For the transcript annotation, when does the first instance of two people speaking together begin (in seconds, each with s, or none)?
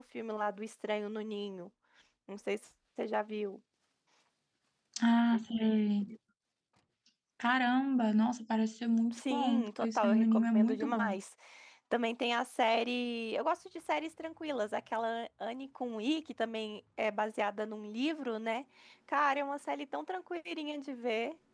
9.1 s